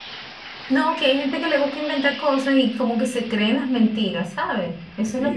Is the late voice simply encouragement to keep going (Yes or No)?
No